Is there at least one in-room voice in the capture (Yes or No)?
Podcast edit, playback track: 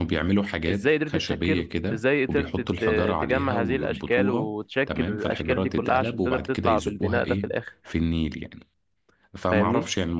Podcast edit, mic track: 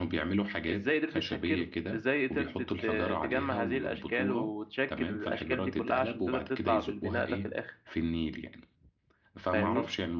No